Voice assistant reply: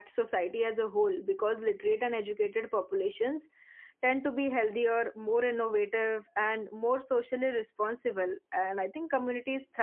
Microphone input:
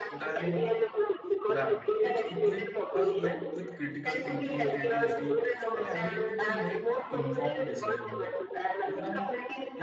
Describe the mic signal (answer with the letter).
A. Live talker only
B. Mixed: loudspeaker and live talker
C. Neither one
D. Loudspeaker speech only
B